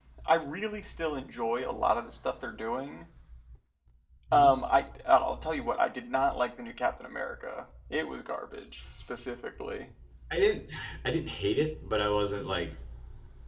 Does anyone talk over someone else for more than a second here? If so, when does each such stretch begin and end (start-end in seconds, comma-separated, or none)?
none